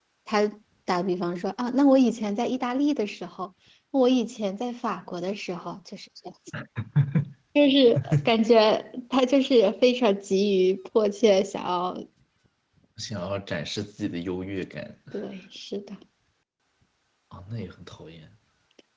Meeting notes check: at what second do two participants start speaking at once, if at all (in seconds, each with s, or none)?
none